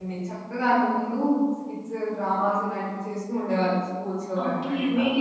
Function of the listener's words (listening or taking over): taking over